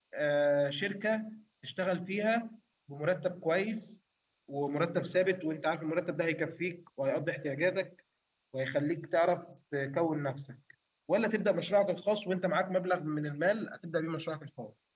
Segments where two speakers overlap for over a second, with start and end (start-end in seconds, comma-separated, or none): none